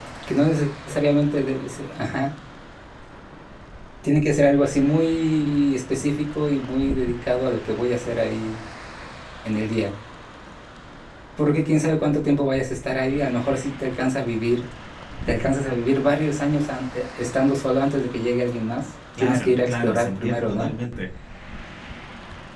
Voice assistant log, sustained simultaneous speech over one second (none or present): present